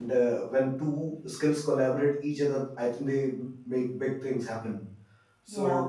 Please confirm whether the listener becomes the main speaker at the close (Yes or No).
No